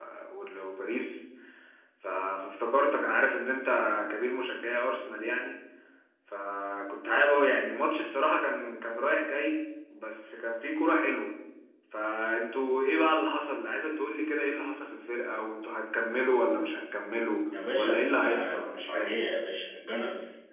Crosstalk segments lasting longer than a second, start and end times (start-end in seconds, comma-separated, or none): 17.8-19.1